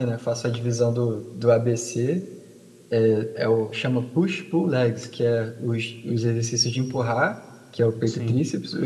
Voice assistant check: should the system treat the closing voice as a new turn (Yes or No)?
No